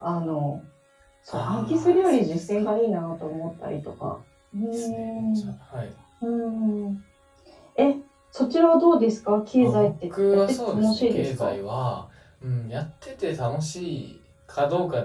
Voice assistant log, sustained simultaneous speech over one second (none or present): present